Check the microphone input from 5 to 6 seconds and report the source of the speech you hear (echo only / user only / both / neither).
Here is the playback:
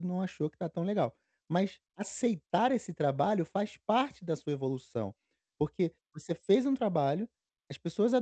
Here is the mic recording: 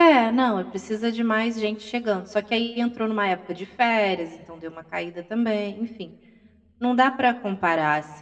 user only